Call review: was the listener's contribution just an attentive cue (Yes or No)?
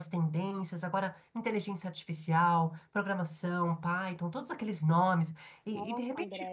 No